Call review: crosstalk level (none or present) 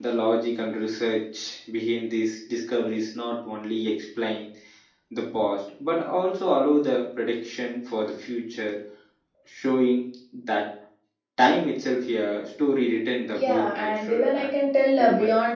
present